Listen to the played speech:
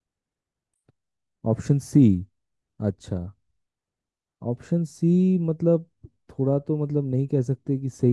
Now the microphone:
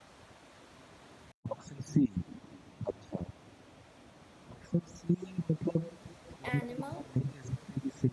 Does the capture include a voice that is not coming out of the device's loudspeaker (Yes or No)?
Yes